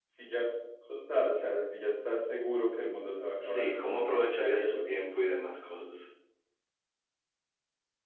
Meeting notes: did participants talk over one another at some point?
Yes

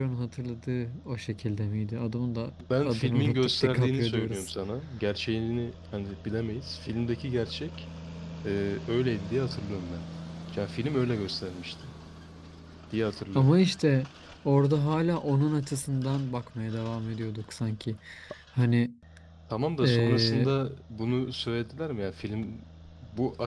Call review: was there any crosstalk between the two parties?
Yes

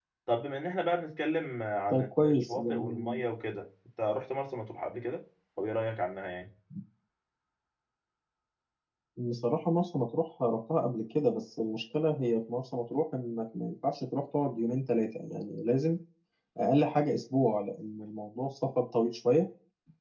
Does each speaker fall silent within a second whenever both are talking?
No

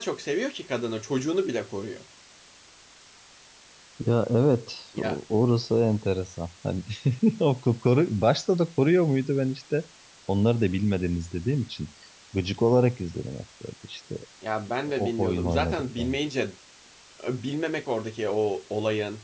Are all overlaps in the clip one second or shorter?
No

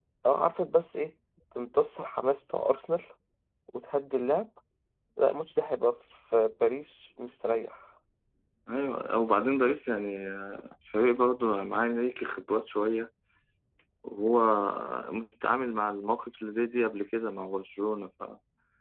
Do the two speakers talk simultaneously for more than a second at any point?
No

